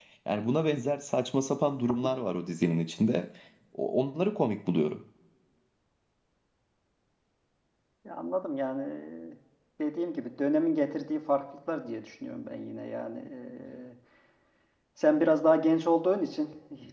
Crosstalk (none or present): none